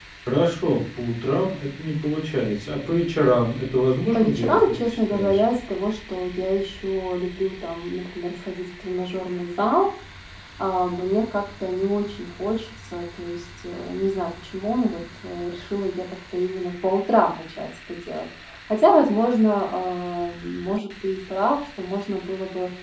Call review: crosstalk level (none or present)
present